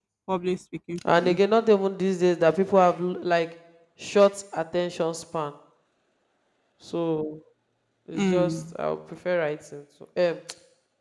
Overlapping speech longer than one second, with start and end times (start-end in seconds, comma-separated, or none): none